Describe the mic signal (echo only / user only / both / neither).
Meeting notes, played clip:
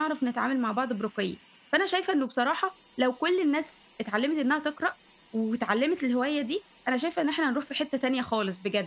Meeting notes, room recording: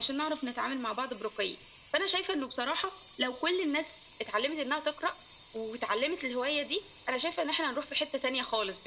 echo only